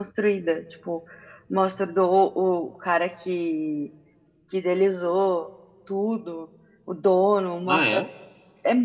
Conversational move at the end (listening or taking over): listening